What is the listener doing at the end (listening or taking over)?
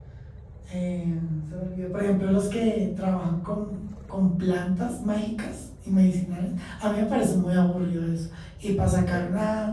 listening